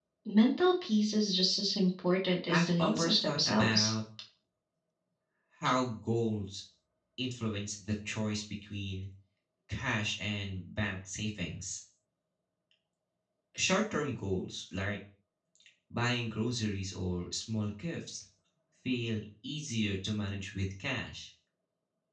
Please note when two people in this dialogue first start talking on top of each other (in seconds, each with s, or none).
2.5 s